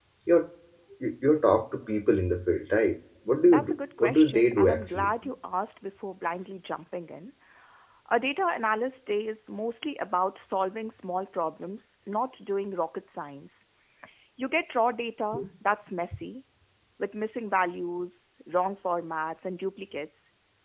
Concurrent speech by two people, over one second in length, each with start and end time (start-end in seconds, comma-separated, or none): 3.4-5.1